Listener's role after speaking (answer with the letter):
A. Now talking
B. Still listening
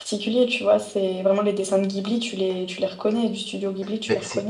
A